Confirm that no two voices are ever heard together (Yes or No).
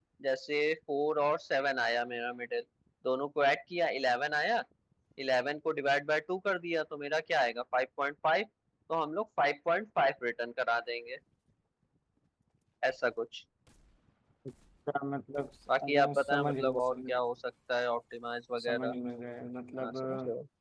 No